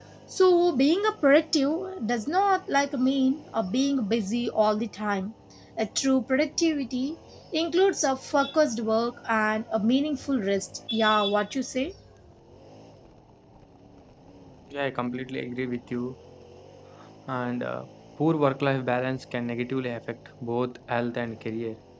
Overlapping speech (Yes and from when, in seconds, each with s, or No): No